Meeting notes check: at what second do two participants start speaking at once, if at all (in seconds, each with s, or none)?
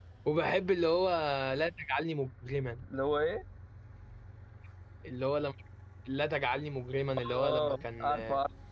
7.2 s